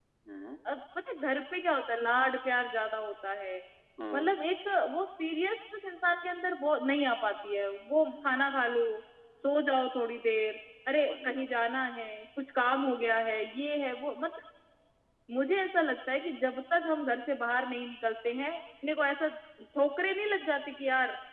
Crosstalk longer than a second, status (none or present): none